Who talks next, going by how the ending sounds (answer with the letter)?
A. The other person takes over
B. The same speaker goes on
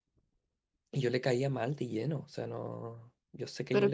A